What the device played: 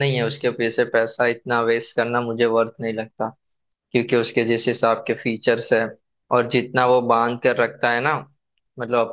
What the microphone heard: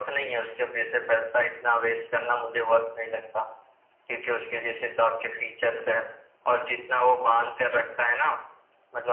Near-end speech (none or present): none